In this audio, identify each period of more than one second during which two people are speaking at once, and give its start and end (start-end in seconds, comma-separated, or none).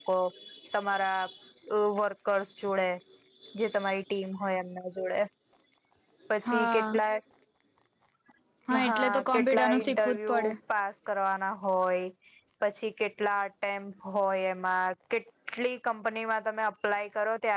8.8-10.5